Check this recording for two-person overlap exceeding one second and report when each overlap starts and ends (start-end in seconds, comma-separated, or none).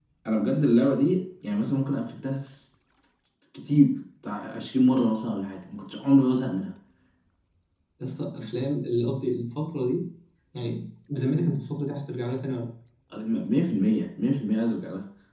none